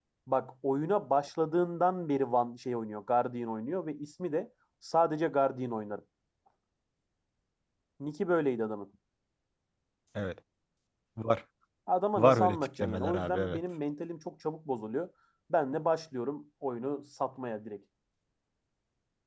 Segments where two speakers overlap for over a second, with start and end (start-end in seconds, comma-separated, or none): 12.2-13.6